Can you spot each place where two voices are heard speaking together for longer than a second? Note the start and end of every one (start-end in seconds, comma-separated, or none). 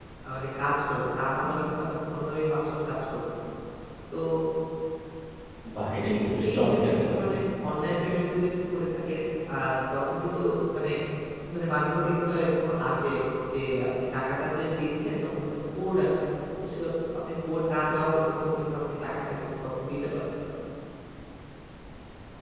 6.1-7.4